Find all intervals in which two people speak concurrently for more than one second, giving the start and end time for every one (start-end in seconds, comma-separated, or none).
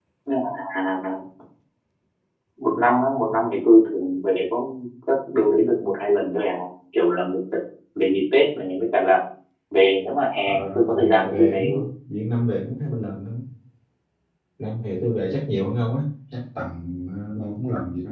10.4-11.8